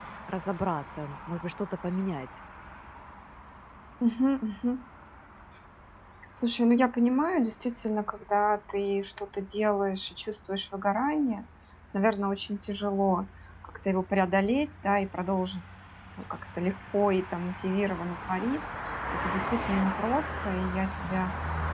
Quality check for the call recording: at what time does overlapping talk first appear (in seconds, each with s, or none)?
none